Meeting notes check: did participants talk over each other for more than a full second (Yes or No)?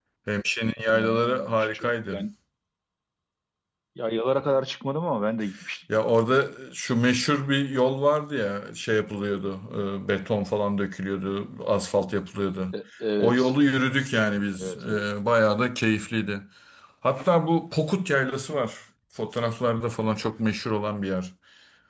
Yes